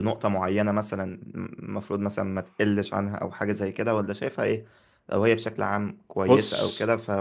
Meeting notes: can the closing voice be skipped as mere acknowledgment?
Yes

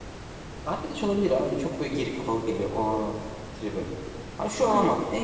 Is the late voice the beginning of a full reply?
No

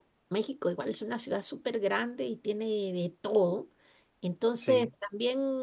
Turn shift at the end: No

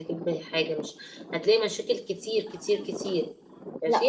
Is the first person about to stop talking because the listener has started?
Yes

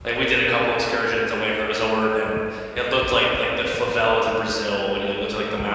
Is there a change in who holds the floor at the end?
No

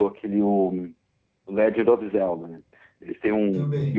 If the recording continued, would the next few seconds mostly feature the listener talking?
No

